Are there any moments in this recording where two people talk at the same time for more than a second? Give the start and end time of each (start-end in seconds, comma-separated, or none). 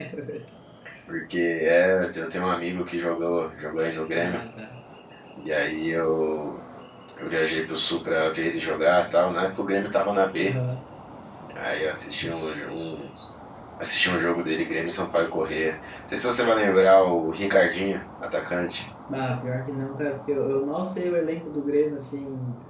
none